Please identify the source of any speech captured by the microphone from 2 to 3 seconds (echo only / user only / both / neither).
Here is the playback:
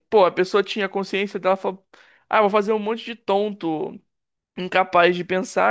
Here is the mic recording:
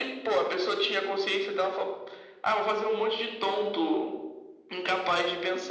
echo only